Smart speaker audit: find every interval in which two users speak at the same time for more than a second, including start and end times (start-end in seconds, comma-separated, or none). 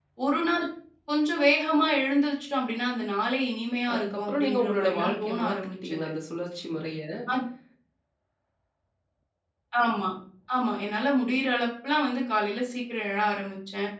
3.9-6.1